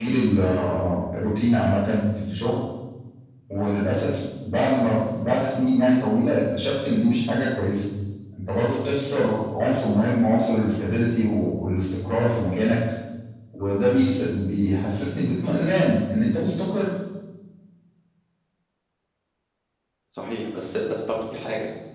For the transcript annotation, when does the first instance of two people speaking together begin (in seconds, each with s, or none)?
none